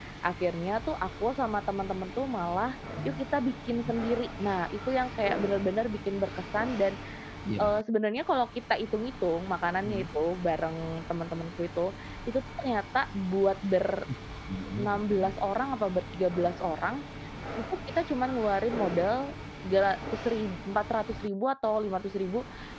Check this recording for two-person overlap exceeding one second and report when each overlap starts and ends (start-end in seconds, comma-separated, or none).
none